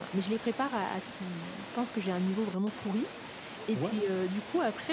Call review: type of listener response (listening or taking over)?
listening